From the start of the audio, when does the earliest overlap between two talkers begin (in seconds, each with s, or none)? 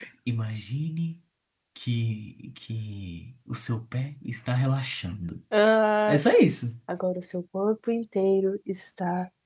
none